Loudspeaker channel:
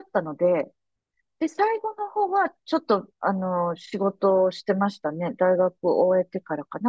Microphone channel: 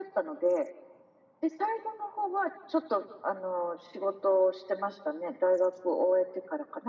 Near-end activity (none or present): none